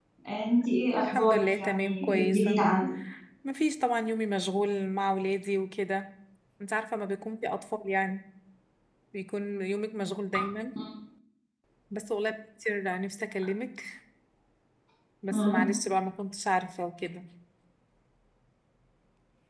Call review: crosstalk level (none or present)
present